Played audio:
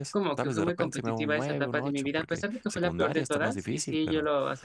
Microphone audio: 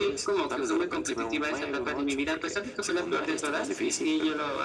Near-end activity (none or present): none